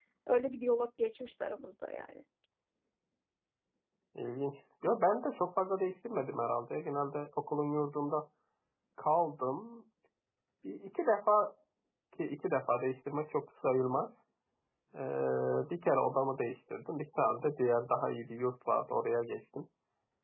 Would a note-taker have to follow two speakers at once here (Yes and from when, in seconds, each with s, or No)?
No